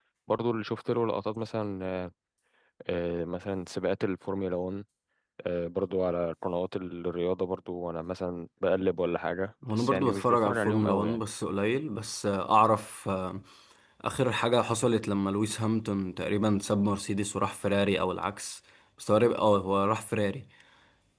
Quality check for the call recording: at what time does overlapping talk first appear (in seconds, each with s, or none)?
9.6 s